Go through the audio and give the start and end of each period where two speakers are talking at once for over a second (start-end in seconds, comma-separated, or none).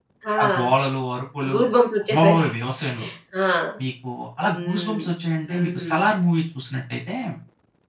none